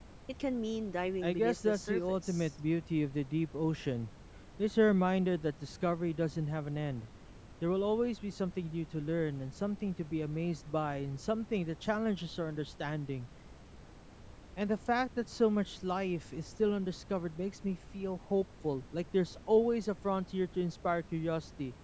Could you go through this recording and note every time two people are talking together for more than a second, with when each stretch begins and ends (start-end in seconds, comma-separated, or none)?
1.2-2.5